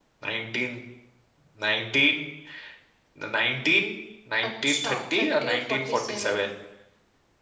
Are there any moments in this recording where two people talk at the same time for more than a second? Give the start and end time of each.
4.5-6.5

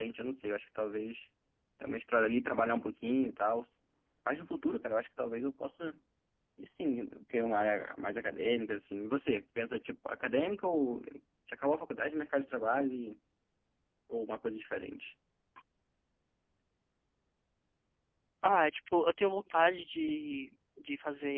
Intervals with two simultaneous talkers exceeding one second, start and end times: none

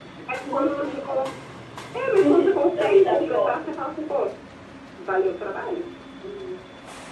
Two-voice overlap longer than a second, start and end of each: 2.2-3.5

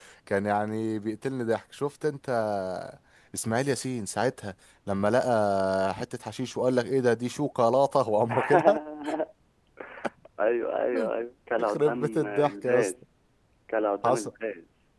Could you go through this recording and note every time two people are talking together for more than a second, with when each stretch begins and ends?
11.6-12.9

